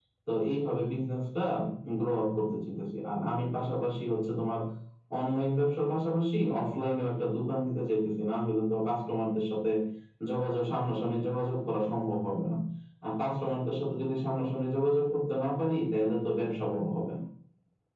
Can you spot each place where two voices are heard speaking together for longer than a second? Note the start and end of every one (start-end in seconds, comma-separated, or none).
none